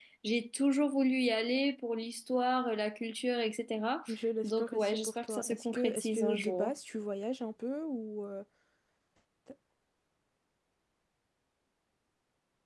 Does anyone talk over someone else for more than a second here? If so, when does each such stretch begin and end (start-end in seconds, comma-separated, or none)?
4.4-6.7